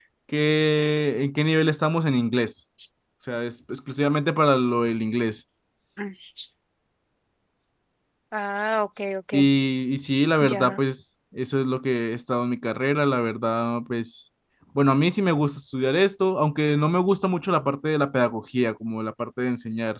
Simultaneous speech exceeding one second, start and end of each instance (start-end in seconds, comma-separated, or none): none